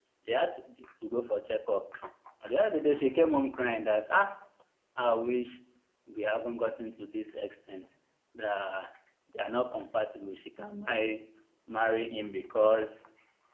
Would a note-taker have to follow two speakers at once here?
No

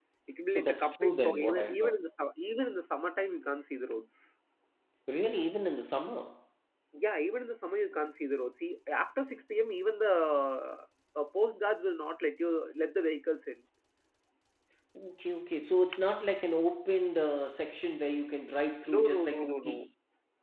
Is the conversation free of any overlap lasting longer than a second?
No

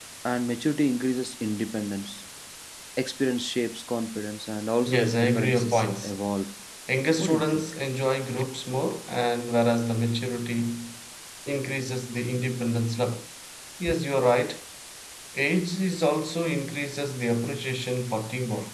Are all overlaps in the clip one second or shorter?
No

